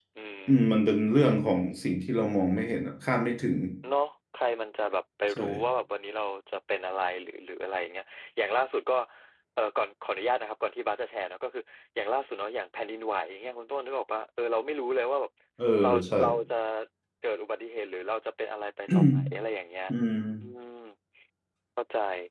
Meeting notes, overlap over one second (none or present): none